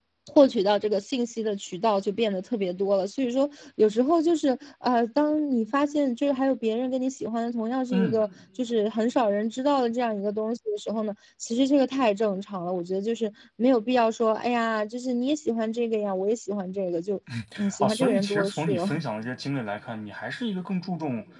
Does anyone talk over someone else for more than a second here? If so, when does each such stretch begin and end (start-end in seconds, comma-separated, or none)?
17.8-19.0